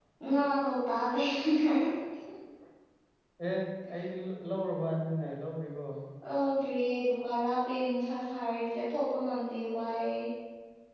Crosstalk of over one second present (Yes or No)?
No